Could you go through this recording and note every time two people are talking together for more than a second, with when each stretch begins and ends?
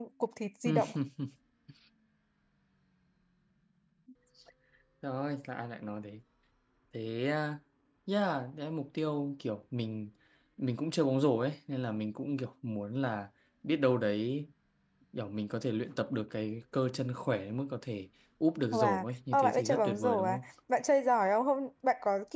18.7-20.4

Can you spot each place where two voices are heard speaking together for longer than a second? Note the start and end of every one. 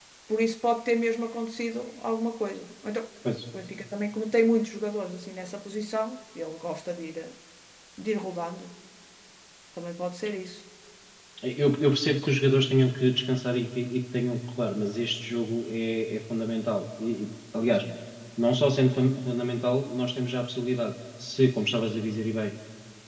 none

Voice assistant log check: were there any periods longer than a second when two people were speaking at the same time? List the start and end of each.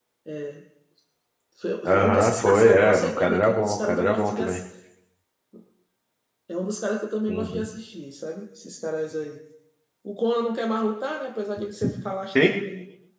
1.8-4.6

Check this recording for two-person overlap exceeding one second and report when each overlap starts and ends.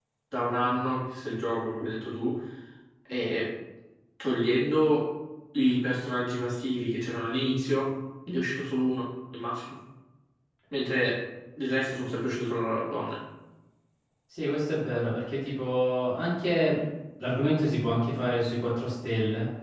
none

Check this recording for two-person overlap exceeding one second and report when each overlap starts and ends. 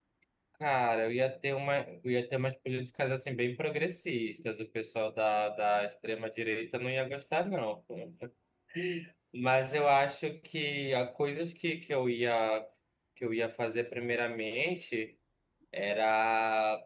none

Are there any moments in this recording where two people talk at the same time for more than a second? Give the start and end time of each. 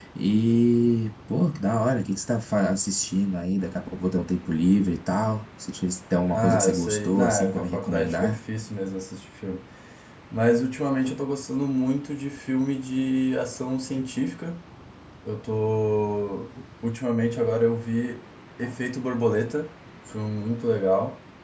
6.3-8.4

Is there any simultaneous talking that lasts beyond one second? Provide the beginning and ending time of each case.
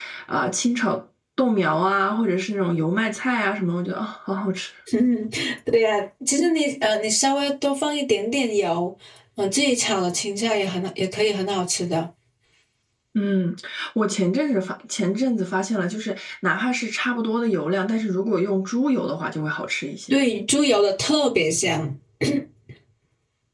none

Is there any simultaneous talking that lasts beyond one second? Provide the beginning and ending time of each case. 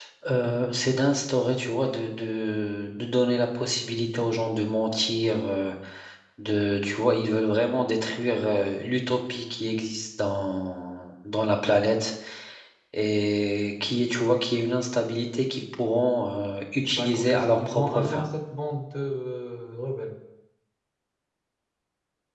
16.9-18.2

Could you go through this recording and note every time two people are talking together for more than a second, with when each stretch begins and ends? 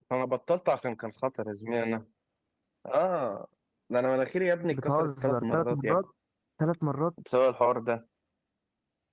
4.7-6.0

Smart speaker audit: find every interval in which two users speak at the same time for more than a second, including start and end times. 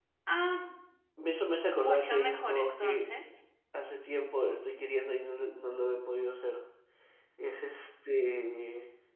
1.8-3.0

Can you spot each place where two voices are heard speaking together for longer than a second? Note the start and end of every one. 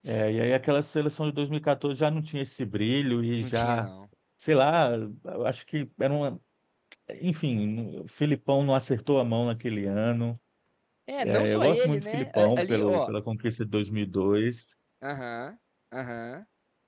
11.2-13.1

